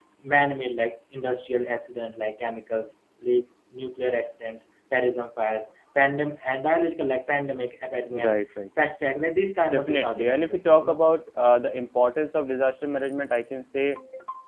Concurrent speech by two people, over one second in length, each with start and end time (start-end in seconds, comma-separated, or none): 9.7-11.0